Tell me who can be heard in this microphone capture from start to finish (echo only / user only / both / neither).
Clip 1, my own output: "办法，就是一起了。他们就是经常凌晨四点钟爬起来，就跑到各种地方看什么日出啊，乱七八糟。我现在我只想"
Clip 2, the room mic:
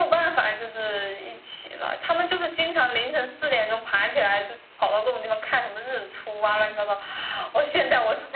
echo only